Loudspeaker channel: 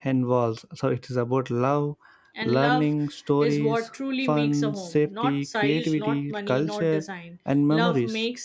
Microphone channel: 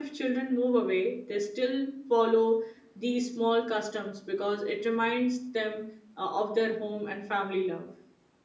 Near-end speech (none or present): present